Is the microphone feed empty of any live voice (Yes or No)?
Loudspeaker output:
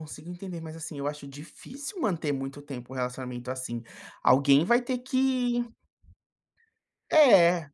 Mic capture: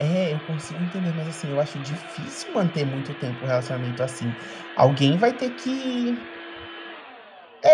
Yes